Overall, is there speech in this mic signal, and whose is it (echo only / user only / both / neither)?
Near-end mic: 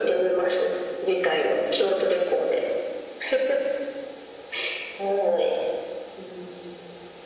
echo only